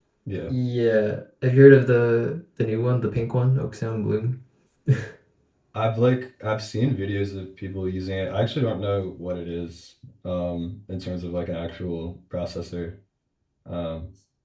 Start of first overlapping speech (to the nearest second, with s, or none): none